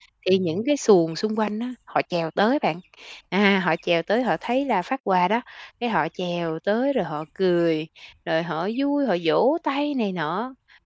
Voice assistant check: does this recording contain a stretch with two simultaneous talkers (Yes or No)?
No